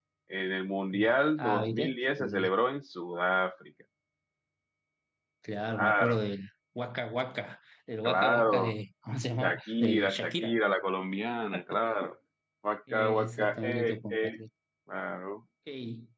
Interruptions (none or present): present